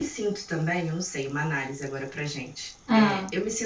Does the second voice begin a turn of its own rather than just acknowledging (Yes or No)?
No